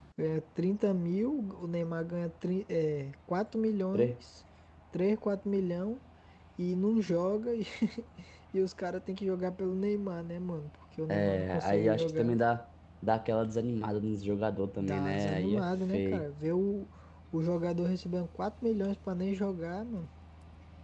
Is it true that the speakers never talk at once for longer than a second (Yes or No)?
No